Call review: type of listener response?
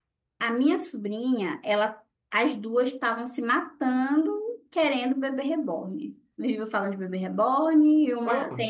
listening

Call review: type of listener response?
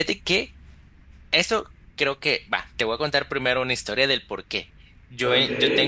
listening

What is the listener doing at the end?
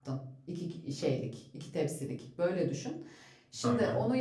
listening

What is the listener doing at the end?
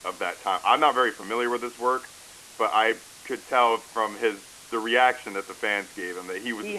taking over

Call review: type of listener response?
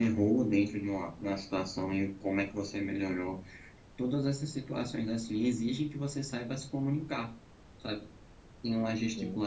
listening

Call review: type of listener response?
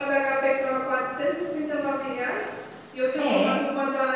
listening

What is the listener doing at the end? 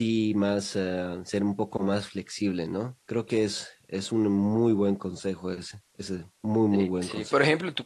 taking over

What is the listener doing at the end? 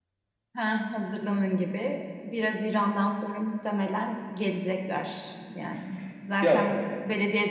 listening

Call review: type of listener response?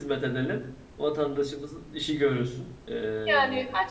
taking over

